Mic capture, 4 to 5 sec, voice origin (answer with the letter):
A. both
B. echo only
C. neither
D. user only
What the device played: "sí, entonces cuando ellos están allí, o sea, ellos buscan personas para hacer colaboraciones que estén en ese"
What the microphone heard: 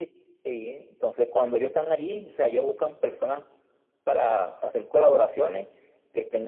B